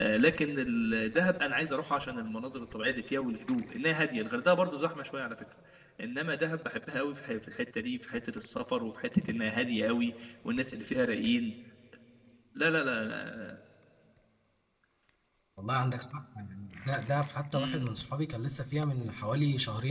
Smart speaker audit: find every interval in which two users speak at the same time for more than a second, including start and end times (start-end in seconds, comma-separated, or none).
none